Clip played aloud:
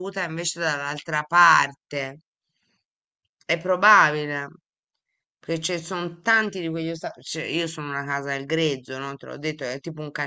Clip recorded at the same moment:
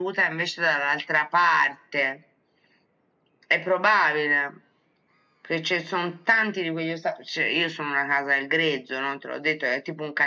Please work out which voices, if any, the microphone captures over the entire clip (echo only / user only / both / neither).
echo only